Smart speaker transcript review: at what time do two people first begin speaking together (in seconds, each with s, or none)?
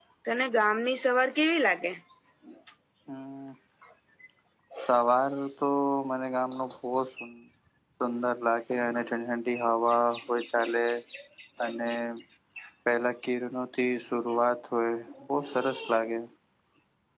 none